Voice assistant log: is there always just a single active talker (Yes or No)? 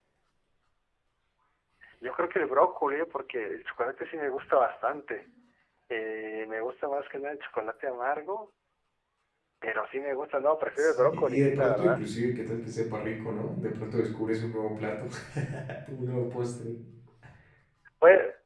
No